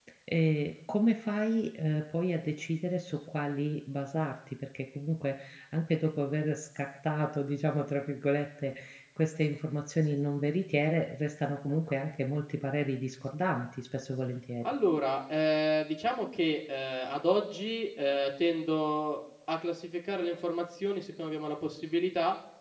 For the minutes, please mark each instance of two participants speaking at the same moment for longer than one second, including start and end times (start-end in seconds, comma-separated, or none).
none